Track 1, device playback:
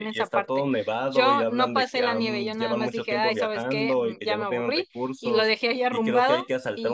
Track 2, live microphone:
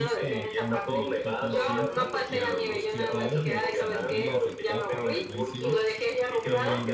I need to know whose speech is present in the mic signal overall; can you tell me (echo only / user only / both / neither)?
both